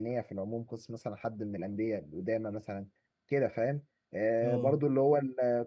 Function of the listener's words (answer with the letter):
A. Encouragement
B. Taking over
A